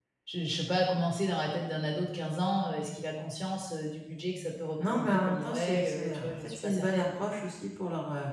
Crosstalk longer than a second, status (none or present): present